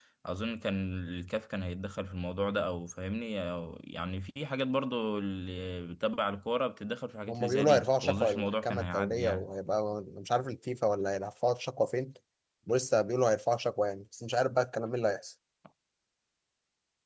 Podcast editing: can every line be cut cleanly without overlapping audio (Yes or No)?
No